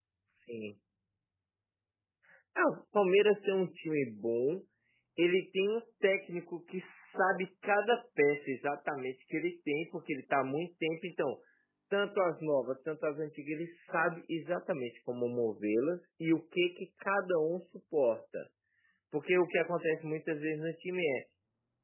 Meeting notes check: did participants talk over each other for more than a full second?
No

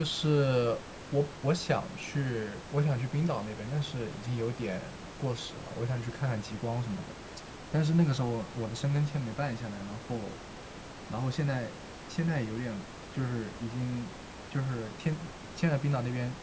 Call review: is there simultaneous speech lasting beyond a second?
No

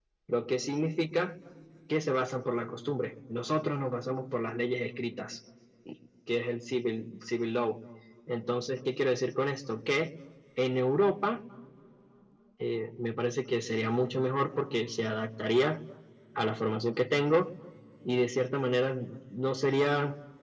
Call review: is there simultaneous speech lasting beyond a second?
No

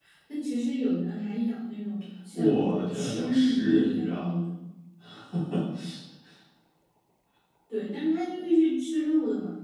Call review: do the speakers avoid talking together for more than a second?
No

